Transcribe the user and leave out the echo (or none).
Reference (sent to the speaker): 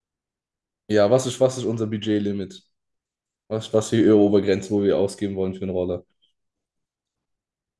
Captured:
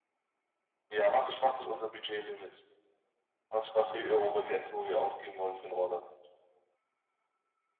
none